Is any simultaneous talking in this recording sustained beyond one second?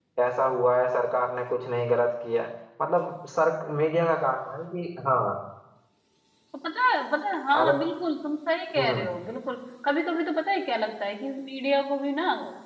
No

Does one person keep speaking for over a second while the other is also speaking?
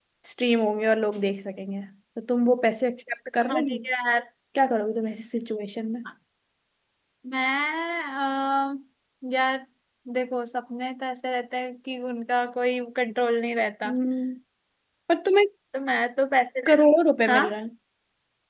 No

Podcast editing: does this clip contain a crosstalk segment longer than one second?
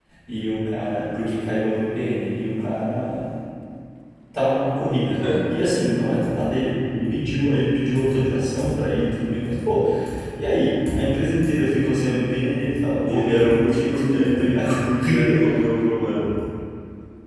Yes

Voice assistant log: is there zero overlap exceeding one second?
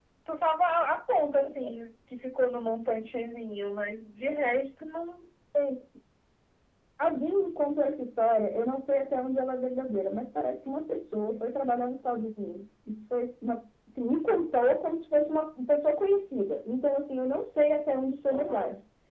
Yes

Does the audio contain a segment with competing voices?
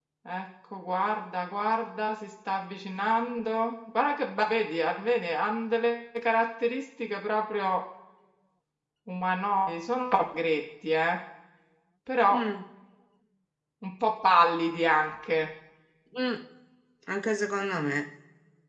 No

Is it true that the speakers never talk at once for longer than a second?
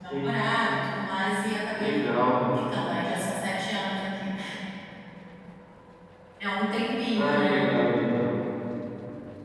Yes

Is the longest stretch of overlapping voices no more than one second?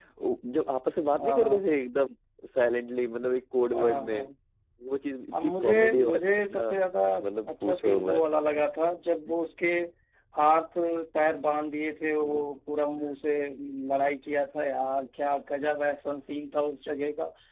No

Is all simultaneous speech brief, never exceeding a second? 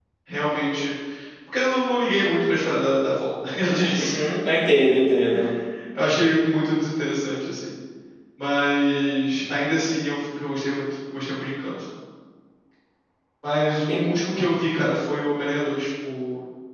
Yes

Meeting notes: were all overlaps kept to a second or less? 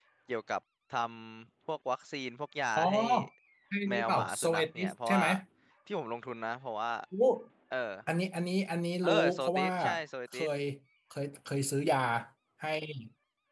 No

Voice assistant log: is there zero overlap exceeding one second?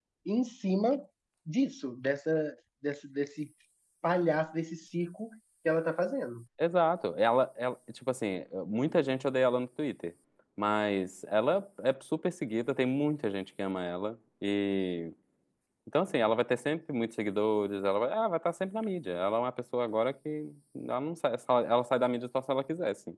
Yes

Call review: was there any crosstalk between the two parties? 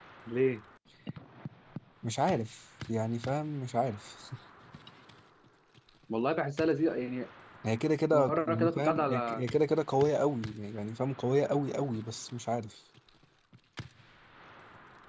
Yes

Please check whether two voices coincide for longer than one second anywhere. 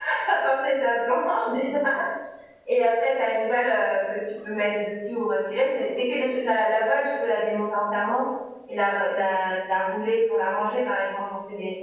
No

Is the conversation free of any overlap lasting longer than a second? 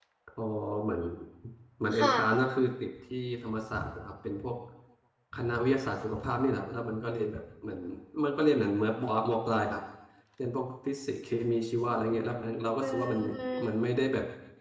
Yes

